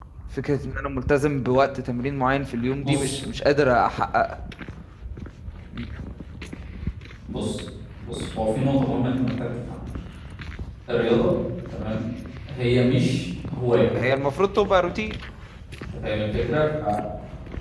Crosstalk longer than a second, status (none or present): none